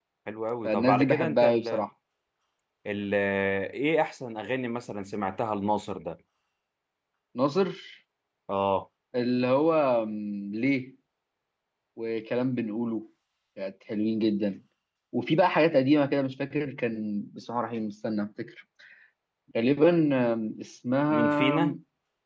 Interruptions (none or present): present